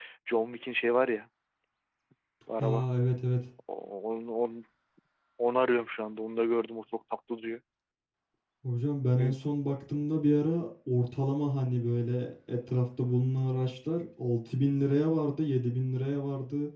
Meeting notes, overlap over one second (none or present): none